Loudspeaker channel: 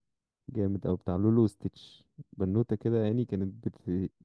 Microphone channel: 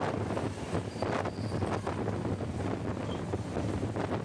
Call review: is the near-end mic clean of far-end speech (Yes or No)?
Yes